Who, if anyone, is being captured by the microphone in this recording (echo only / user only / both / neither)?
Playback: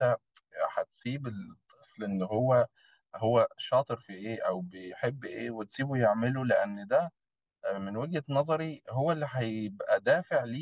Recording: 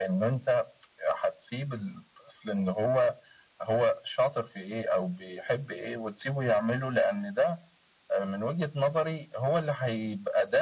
echo only